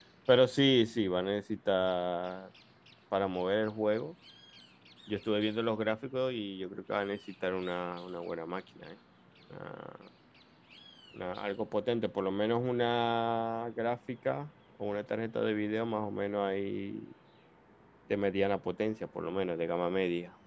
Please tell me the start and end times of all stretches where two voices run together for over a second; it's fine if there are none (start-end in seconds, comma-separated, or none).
none